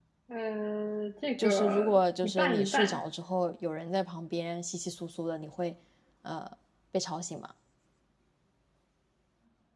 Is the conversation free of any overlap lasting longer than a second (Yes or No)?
No